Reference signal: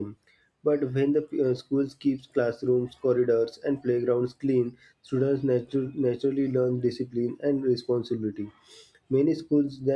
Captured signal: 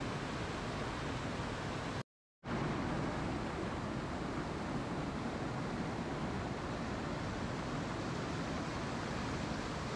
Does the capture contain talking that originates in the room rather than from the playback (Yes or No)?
No